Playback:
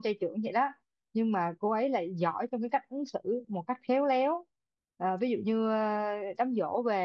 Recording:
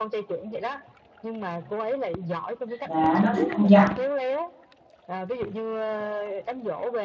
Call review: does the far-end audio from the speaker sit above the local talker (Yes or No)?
No